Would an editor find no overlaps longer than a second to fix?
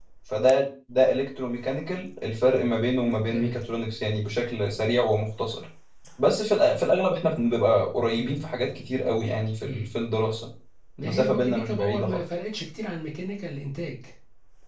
No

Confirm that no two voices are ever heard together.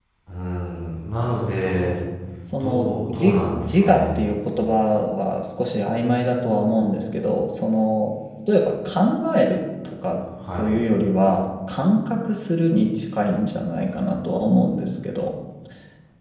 No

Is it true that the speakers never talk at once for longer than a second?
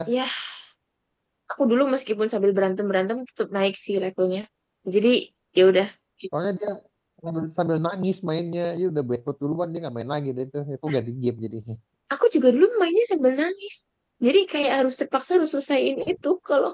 Yes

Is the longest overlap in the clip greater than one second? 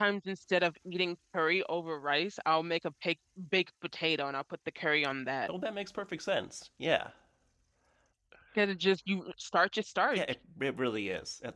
No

